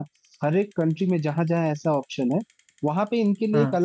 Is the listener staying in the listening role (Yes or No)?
Yes